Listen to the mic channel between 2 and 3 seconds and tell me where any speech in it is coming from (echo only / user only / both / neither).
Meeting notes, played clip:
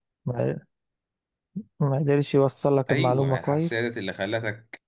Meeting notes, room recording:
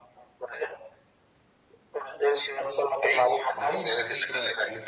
echo only